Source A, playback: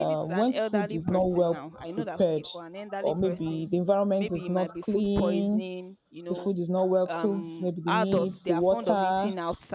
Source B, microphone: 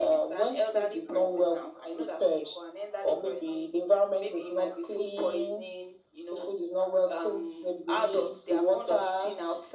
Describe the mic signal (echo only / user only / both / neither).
echo only